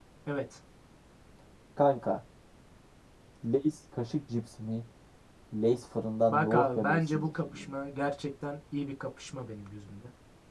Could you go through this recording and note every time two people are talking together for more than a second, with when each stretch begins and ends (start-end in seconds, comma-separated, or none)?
6.3-7.7